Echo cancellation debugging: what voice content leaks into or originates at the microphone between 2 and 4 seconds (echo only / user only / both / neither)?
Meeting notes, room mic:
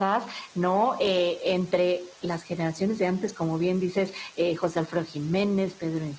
echo only